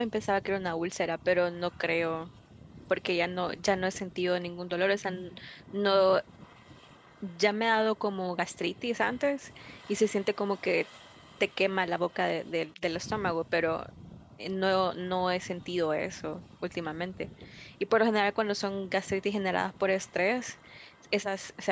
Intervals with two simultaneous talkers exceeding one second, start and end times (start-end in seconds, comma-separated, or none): none